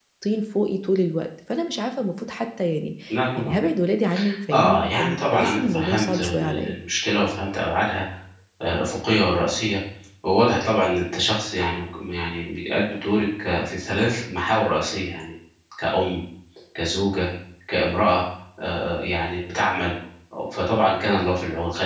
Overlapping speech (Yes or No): Yes